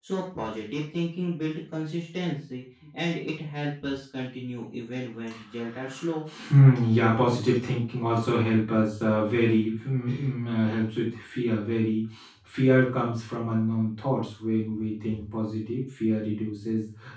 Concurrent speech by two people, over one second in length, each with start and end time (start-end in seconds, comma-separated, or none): none